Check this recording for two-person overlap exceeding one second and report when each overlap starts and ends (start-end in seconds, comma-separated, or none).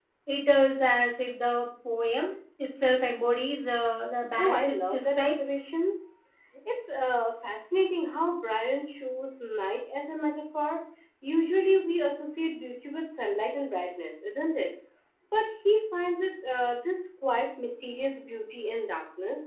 4.4-5.6